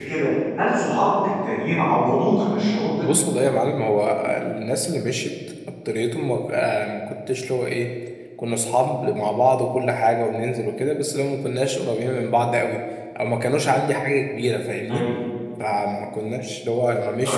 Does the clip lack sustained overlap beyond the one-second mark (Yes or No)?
Yes